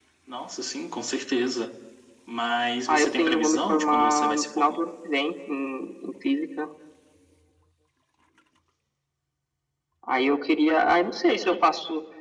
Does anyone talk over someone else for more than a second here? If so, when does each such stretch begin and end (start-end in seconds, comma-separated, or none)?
2.9-4.8